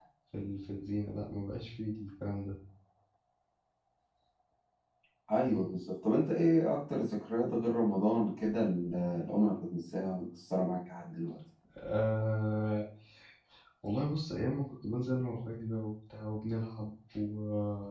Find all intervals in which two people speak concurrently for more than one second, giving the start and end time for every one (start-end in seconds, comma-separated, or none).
none